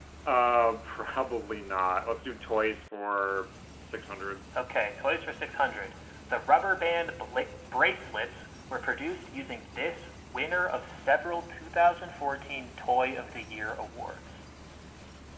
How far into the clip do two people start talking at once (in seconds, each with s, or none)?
none